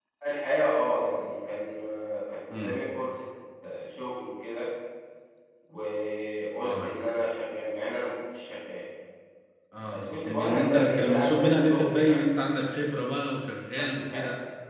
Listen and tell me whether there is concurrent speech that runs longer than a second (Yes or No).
Yes